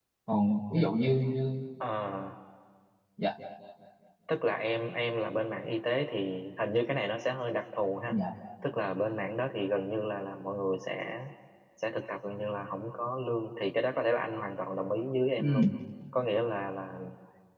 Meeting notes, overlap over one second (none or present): none